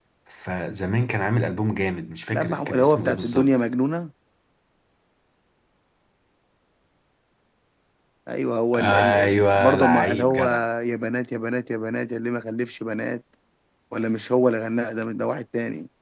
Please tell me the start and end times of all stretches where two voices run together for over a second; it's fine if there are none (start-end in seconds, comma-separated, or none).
2.3-3.5, 8.7-10.5